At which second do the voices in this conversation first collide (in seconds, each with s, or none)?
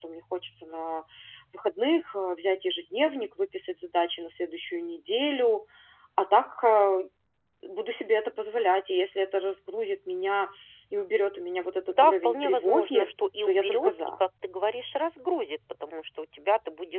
11.9 s